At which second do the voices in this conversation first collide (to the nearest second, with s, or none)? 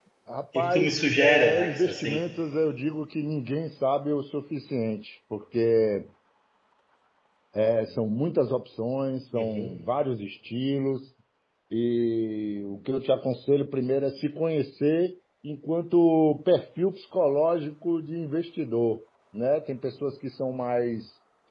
1 s